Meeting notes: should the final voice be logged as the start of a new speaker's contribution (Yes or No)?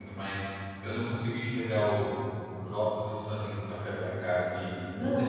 Yes